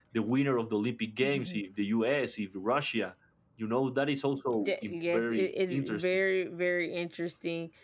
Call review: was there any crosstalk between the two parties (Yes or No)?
Yes